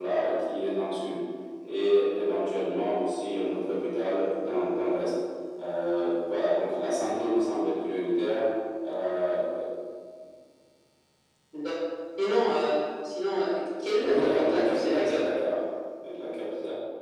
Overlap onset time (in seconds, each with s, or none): 14.0 s